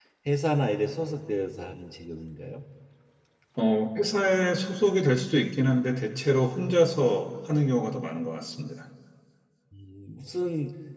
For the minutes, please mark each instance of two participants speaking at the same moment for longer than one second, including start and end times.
none

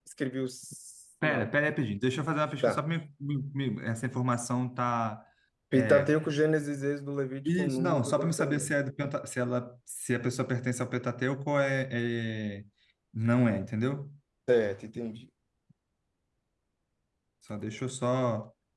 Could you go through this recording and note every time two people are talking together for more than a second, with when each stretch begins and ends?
7.4-8.7

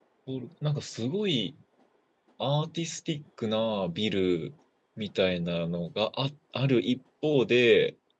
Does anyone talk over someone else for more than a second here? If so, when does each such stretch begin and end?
none

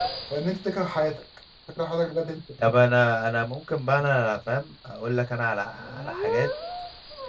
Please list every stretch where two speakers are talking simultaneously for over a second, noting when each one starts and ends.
none

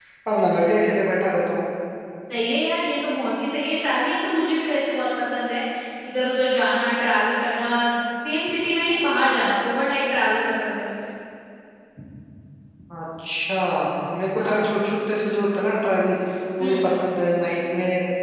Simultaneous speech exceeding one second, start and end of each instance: none

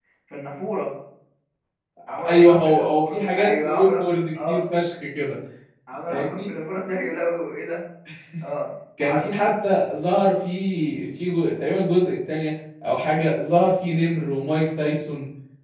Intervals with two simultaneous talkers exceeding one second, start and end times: 2.3-4.0

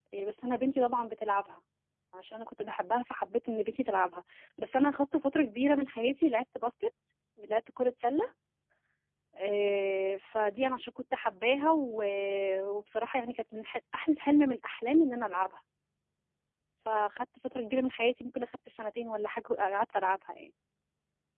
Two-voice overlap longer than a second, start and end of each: none

